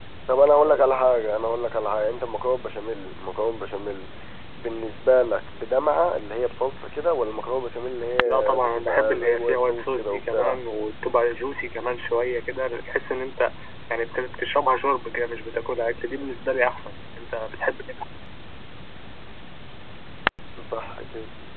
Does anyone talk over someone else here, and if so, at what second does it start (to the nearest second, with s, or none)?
8 s